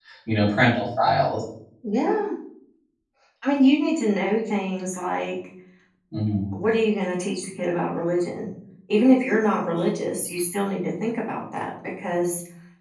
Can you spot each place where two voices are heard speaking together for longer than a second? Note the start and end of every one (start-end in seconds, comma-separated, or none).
none